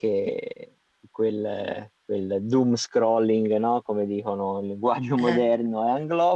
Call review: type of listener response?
listening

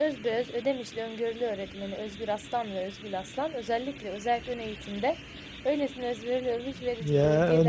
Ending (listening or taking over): taking over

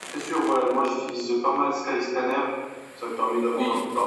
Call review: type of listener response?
listening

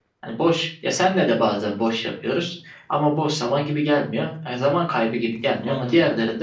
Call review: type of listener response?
listening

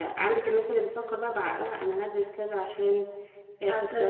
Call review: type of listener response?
taking over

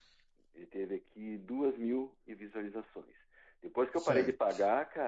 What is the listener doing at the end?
listening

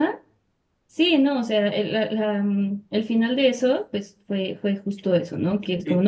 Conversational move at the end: listening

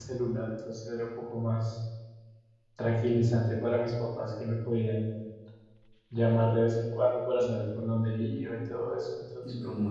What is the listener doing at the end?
listening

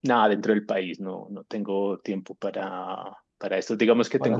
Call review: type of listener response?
listening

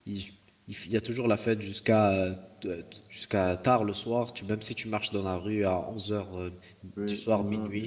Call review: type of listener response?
taking over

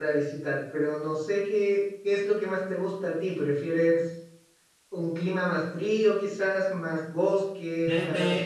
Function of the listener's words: taking over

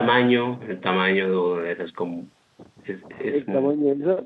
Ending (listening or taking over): taking over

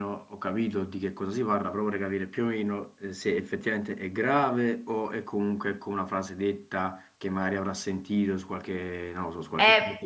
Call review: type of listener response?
taking over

